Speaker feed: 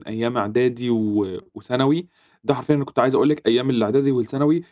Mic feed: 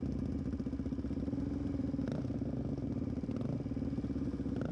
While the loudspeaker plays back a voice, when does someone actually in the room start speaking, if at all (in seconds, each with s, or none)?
none